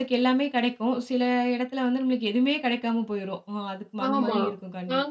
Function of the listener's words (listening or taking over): taking over